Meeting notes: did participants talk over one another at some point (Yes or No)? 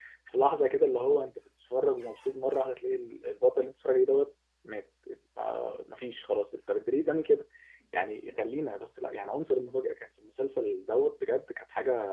No